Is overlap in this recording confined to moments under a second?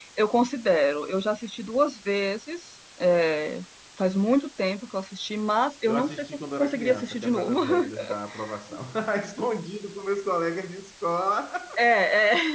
No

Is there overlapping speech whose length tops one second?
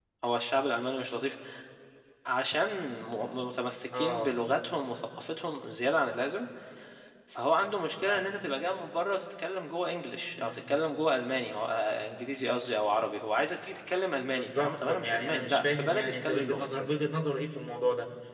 Yes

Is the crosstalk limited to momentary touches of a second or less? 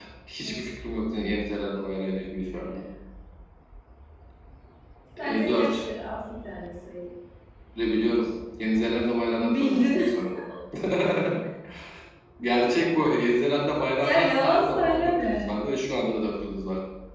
No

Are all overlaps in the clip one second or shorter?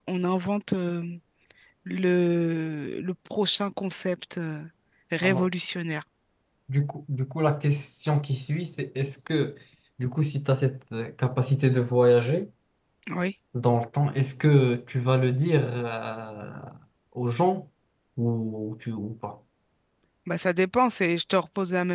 Yes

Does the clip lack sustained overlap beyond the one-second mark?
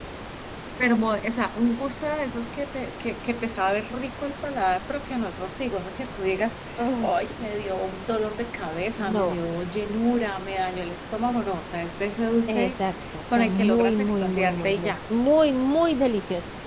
No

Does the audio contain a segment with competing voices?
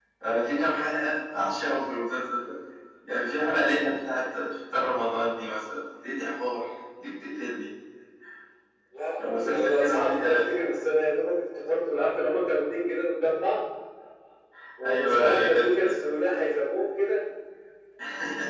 Yes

